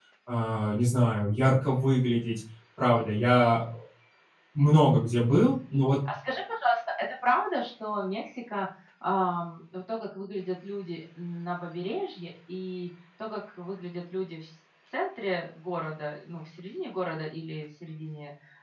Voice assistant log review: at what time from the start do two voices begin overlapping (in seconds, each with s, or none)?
none